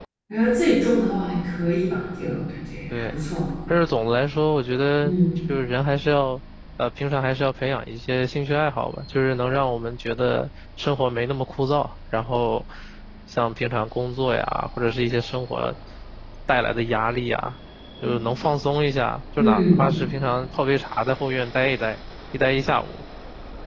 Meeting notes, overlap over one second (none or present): none